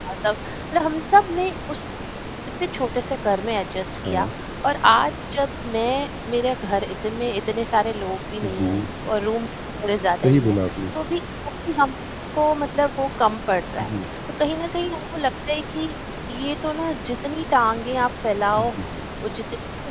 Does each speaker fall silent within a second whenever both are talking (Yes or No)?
Yes